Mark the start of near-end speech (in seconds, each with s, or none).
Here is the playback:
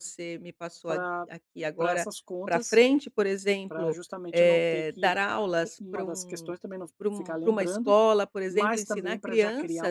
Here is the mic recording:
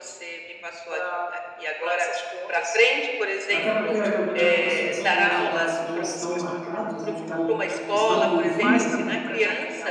3.5 s